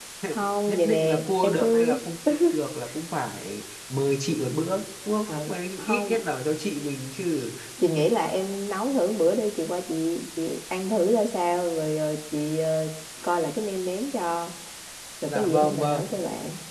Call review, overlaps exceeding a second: present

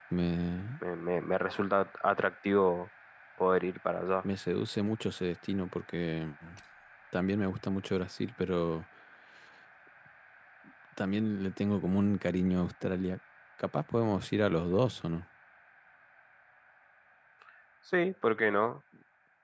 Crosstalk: none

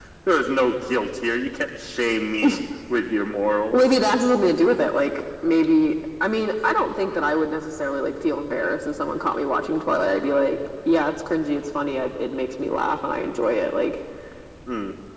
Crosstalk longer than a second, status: none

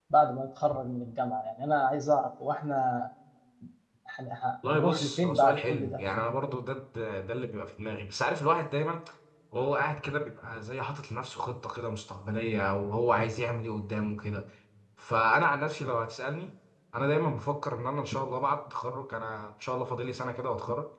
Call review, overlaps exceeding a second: present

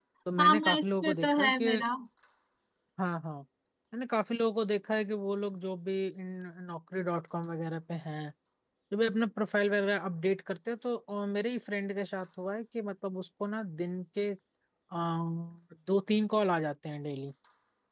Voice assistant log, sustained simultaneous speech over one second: present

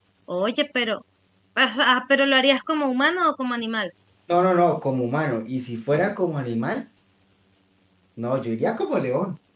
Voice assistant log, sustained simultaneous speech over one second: none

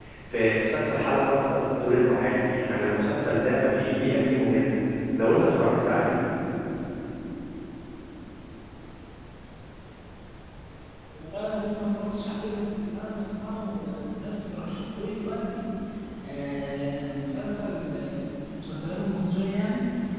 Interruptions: none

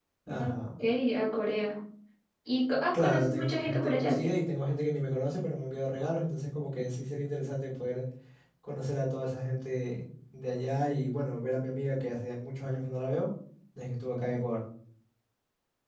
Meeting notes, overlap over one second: present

